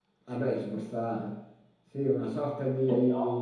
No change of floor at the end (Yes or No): Yes